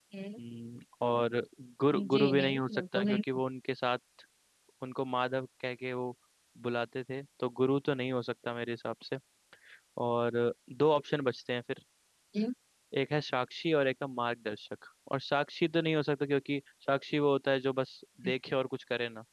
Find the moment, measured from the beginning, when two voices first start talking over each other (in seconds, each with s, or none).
1.9 s